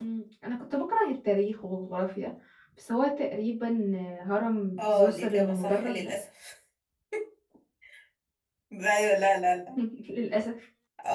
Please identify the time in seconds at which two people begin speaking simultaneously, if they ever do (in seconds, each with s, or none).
4.8 s